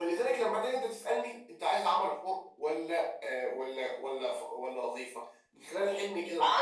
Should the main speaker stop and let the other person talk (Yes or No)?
Yes